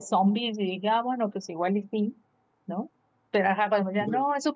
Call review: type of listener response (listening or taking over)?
listening